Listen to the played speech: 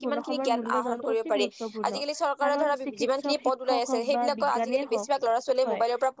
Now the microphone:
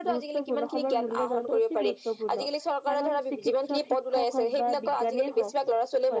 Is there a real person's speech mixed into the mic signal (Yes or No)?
No